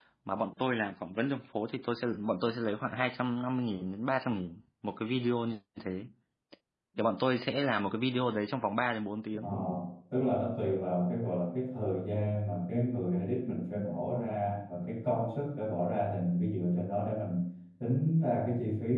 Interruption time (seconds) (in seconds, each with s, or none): none